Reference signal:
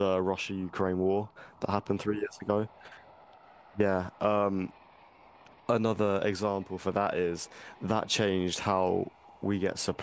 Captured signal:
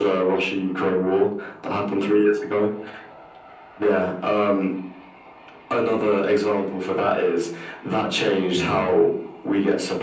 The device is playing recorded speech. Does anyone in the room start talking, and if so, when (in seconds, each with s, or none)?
8.6 s